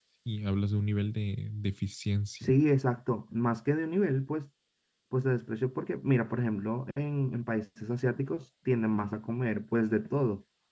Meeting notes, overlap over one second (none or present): none